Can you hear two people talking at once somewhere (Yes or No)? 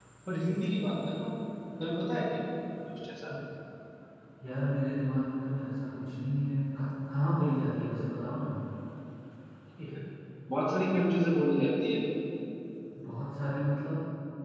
No